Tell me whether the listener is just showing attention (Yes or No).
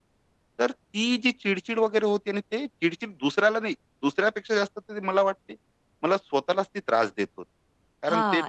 No